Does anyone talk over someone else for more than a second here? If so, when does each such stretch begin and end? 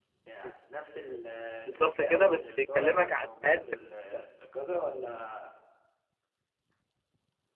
1.7-3.6

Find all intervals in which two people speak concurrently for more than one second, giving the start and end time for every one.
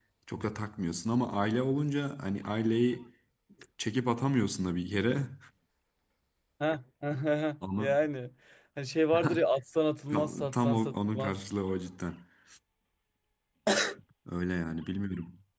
10.1-11.3

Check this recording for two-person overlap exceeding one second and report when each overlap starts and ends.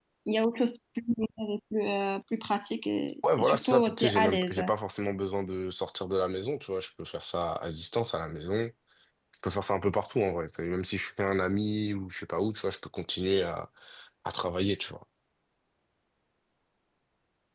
3.4-4.6

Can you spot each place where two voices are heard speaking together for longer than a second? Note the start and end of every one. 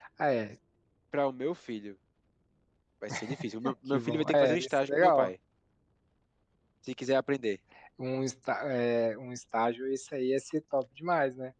3.9-5.3

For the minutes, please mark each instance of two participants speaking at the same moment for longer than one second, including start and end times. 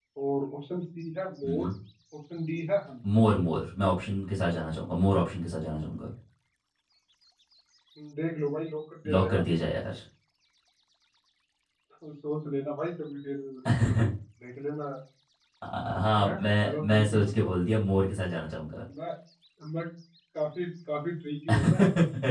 16.2-17.5

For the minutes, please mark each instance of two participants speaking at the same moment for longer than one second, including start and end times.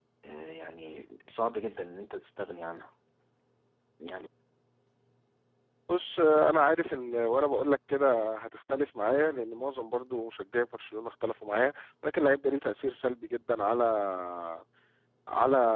none

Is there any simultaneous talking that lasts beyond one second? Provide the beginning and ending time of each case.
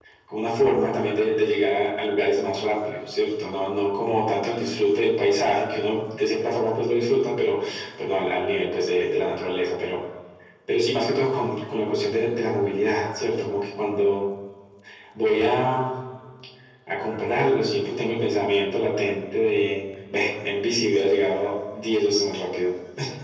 none

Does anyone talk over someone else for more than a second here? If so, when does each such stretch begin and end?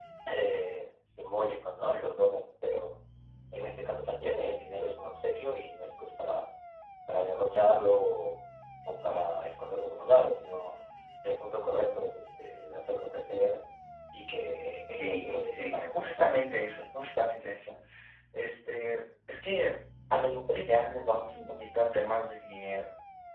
14.9-16.3

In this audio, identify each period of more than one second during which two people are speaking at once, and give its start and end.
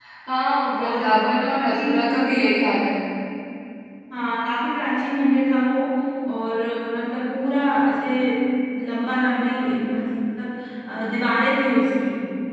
0.8-2.5

